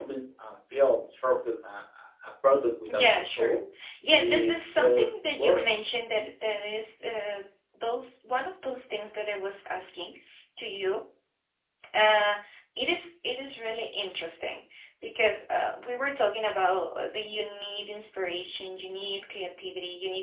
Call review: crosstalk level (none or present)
present